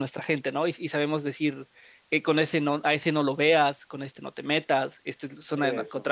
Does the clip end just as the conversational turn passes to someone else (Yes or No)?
No